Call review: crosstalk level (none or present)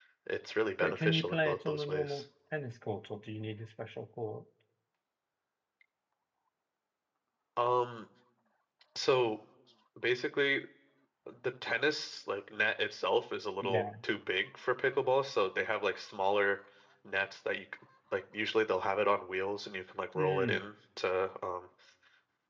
present